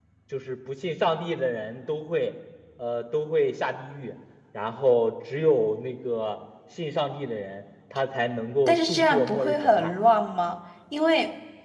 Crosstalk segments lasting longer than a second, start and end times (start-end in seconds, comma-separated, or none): 8.7-9.9